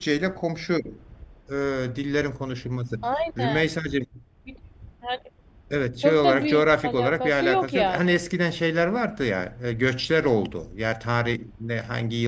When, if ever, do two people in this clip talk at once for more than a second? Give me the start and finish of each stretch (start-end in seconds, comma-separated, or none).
6.0-8.2